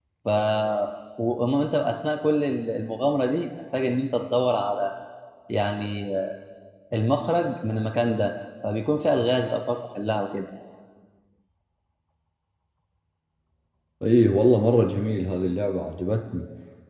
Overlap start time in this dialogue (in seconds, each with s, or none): none